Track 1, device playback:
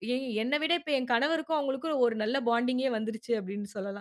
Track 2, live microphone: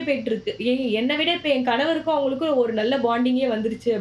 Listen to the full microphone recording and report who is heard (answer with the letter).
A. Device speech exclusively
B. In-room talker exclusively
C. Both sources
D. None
A